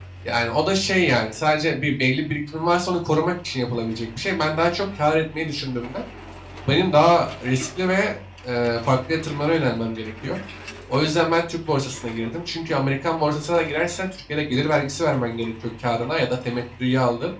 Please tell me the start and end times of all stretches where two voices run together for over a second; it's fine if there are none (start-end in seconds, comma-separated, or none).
none